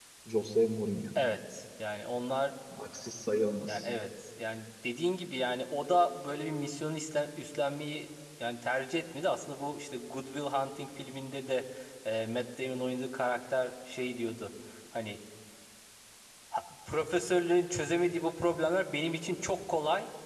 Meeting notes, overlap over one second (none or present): none